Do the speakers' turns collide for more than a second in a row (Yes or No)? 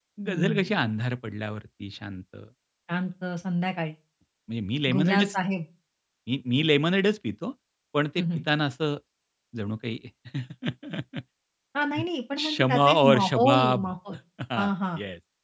Yes